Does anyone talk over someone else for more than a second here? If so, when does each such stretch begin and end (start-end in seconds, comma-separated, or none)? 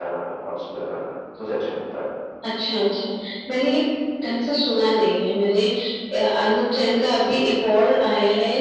none